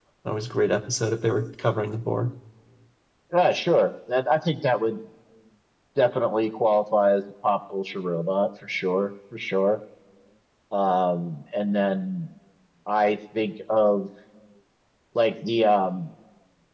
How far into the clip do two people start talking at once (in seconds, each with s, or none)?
none